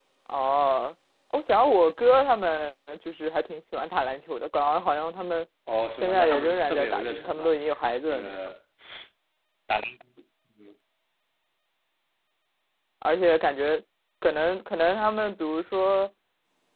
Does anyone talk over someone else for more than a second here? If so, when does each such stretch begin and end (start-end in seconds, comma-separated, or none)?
6.0-7.5